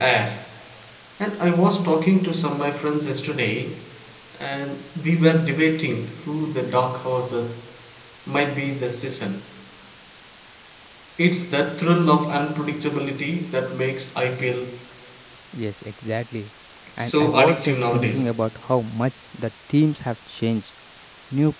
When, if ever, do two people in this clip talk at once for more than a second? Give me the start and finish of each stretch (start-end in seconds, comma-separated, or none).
17.0-18.3